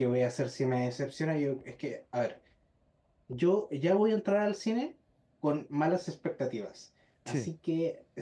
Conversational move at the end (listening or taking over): listening